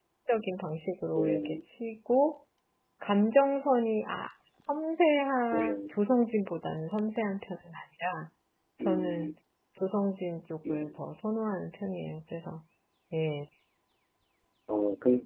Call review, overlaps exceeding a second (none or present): none